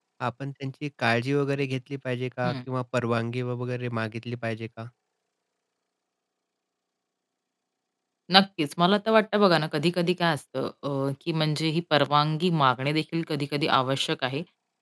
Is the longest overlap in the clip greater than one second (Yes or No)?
No